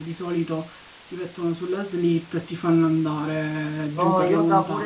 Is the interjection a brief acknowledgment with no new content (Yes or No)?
No